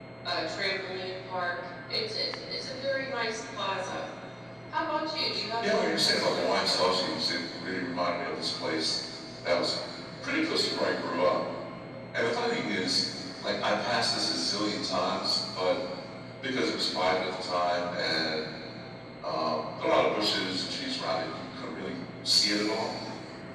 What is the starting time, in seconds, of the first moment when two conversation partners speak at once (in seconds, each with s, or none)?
5.6 s